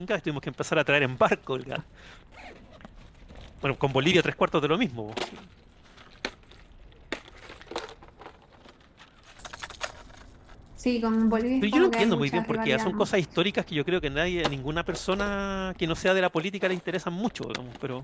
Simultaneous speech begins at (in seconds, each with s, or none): 11.6 s